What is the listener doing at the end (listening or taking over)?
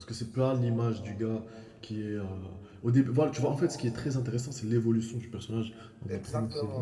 taking over